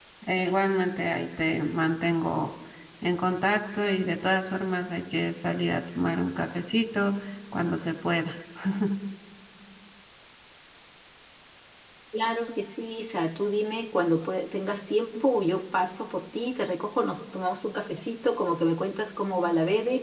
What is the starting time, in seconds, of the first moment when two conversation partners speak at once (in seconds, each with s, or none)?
none